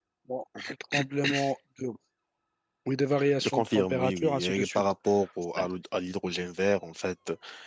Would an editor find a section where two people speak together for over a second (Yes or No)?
Yes